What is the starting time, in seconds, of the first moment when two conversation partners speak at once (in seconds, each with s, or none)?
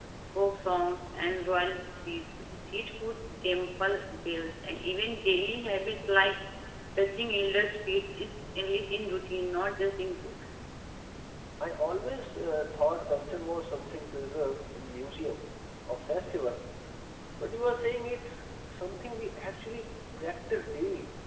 none